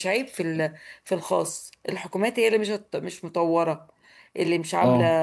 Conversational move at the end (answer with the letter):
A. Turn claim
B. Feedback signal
A